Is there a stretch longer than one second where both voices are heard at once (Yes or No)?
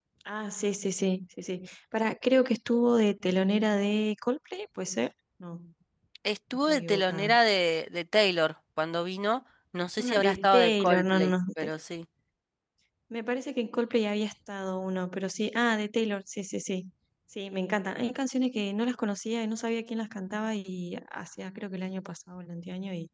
Yes